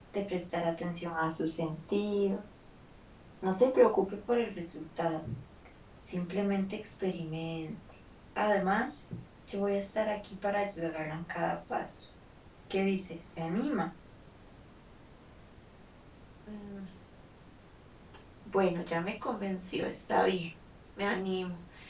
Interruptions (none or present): none